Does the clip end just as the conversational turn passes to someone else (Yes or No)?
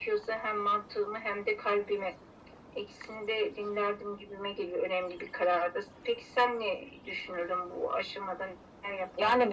Yes